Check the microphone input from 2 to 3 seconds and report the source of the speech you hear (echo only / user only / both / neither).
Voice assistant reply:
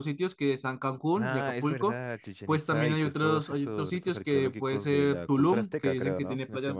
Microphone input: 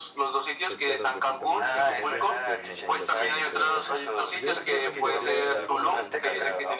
both